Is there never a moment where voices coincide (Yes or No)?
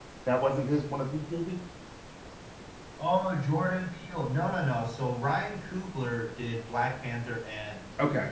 Yes